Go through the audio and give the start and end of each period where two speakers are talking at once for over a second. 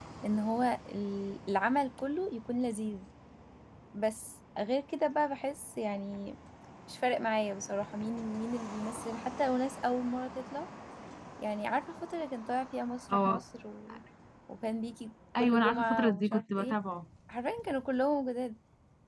15.4-16.8

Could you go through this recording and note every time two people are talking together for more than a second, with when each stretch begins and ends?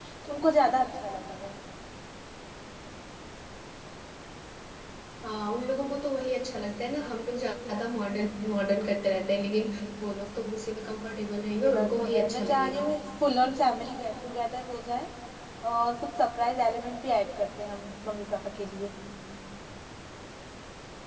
11.6-12.9

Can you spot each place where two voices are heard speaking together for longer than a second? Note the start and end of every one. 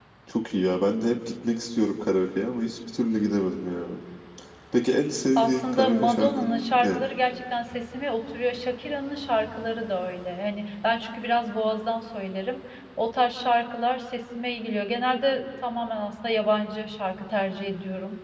5.4-7.0

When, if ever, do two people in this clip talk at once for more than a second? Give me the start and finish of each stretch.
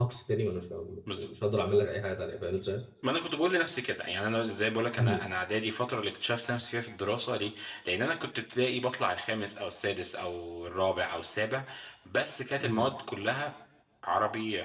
none

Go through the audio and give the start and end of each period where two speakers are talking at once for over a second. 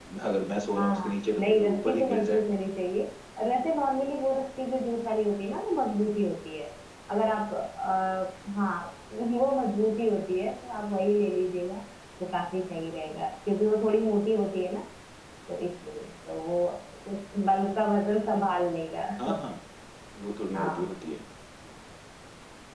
0.5-2.4

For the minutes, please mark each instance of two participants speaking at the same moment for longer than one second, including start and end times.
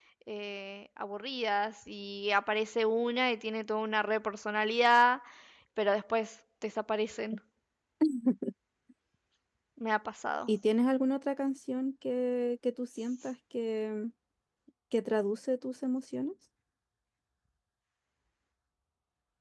none

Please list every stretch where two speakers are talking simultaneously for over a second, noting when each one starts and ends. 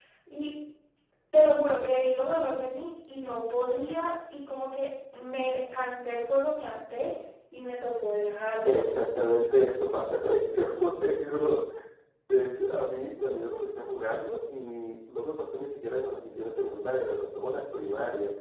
none

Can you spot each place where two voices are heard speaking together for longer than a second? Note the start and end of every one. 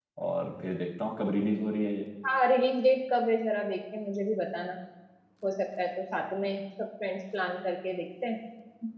none

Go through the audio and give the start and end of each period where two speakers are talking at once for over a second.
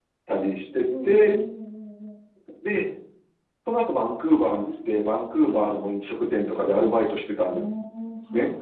none

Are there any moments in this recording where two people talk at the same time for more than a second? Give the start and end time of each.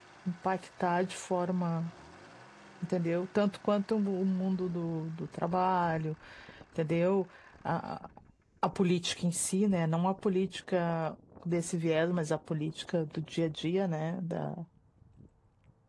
none

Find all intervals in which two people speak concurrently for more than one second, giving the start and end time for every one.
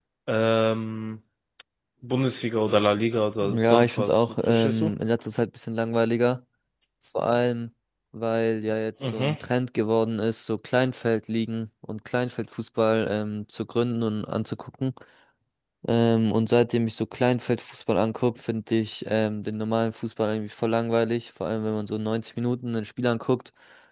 3.4-4.9

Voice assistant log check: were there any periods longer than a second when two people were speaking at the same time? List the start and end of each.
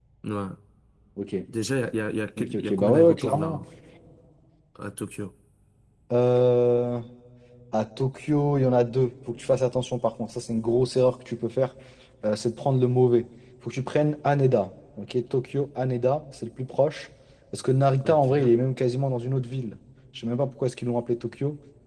2.4-3.6

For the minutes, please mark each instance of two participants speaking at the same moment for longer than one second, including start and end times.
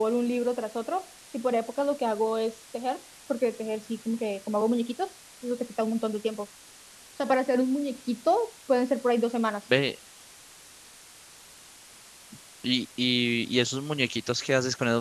none

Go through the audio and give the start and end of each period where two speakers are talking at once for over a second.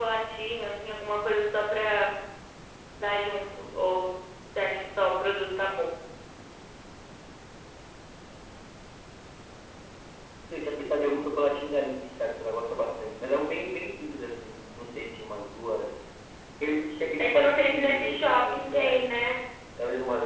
17.2-19.0

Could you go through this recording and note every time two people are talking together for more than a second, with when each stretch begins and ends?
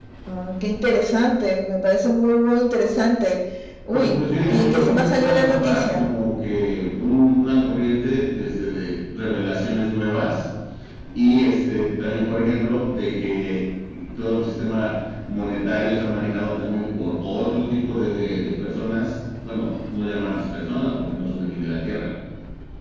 3.9-6.0

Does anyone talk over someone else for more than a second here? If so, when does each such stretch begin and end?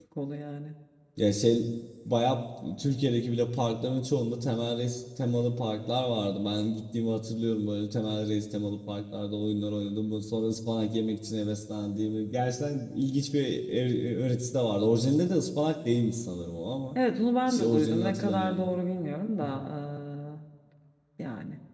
17.5-18.8

